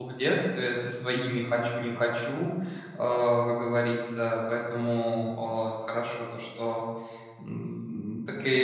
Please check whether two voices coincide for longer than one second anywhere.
No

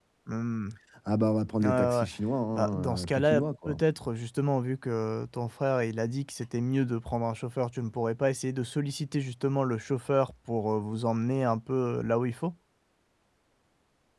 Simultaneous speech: Yes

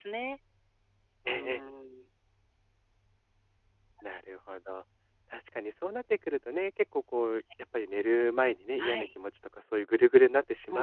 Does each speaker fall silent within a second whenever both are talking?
Yes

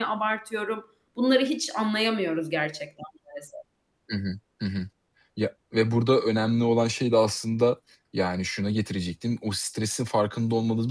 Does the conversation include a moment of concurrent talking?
No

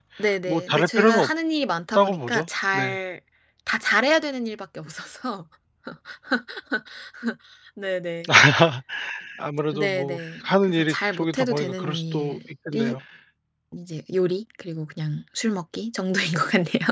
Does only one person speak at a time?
No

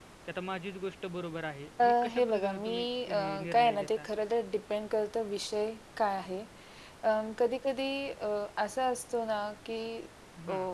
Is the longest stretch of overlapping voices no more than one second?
No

